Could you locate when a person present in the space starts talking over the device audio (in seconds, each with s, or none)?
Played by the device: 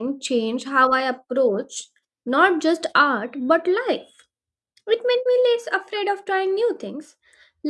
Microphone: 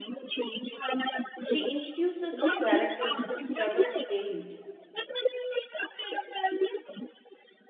1.4 s